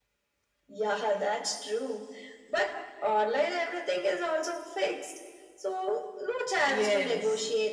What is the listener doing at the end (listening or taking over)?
taking over